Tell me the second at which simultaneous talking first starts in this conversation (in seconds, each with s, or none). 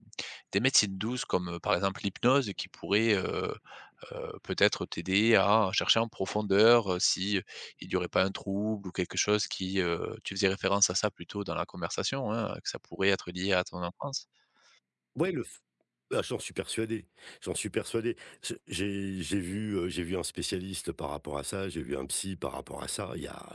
none